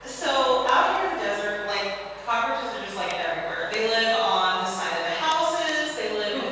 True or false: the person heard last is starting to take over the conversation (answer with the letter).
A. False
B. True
A